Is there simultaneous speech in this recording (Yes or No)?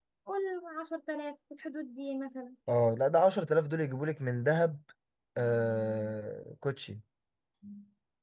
No